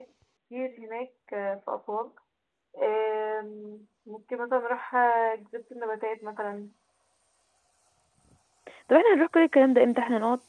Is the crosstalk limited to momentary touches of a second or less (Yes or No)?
Yes